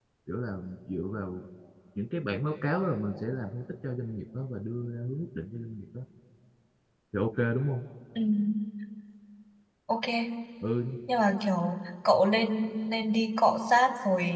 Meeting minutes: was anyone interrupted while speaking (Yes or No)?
No